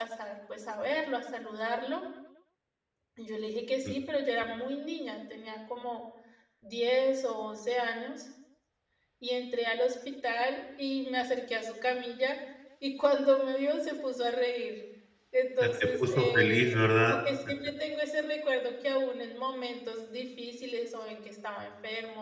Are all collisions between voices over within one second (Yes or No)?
No